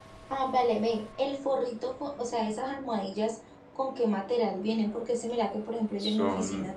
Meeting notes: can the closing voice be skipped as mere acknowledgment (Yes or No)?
Yes